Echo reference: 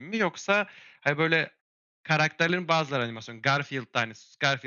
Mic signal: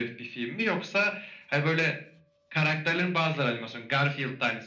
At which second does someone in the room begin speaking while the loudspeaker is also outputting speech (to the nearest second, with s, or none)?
none